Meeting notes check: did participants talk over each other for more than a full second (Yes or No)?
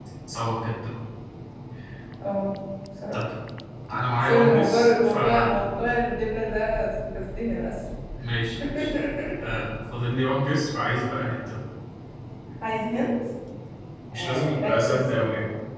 Yes